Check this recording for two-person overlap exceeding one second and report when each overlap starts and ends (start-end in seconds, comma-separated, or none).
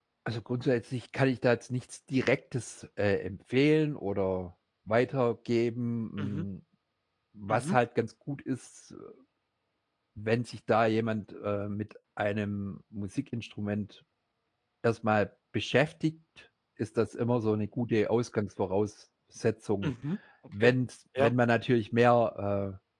none